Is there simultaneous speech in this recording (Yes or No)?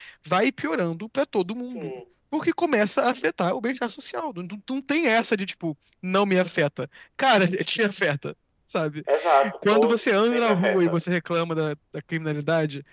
Yes